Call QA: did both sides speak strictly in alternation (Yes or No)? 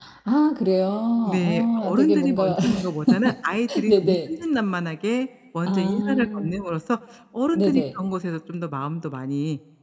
No